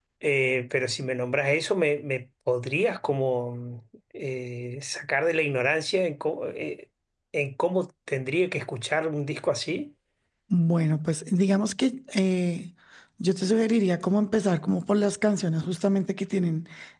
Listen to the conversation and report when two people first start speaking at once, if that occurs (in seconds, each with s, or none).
none